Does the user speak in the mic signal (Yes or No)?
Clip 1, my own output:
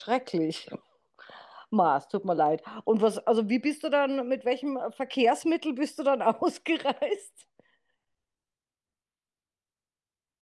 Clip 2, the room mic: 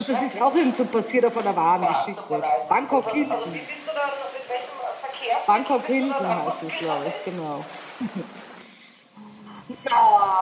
Yes